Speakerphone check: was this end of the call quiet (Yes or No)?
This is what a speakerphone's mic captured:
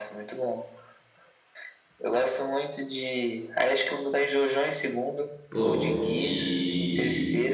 No